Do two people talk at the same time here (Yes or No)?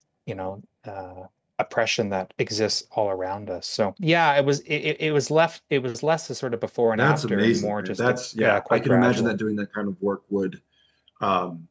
Yes